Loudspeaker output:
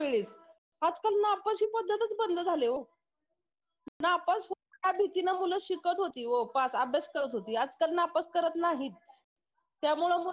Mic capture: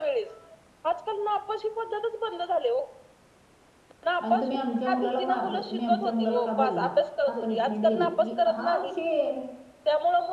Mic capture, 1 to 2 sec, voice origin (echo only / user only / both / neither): echo only